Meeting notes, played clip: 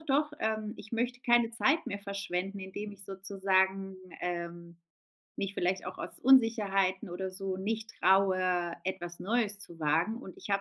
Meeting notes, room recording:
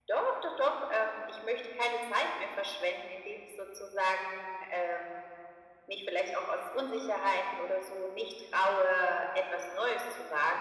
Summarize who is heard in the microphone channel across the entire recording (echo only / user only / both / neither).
echo only